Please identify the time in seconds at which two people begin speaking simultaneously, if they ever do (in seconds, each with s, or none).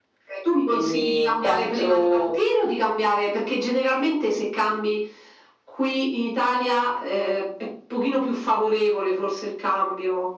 0.7 s